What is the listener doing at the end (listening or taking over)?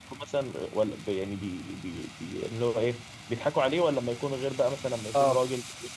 listening